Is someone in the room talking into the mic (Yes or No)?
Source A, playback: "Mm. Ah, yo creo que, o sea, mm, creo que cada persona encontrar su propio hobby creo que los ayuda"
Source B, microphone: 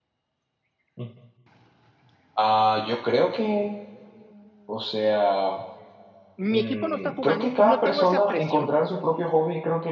Yes